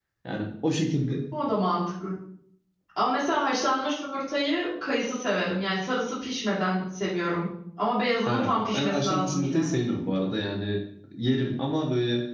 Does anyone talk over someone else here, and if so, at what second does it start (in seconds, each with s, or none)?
8.3 s